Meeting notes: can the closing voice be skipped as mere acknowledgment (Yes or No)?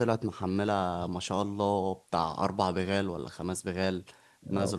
Yes